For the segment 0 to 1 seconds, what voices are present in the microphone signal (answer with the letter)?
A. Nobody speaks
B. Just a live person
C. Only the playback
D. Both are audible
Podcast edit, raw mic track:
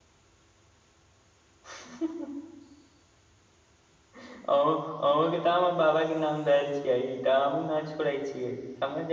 A